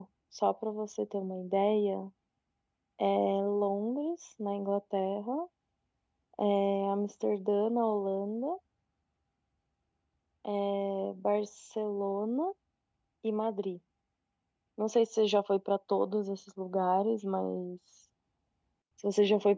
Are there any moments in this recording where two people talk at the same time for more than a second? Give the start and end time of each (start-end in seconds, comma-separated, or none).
none